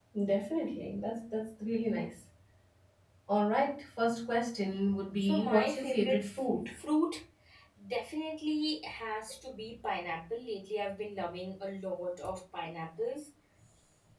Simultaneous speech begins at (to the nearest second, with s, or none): 5 s